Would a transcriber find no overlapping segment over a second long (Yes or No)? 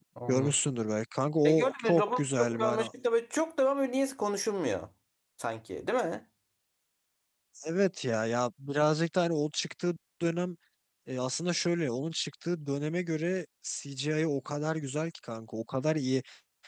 No